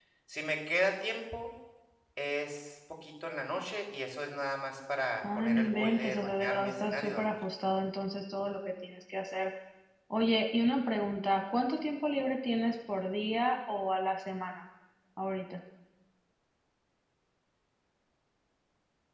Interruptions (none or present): present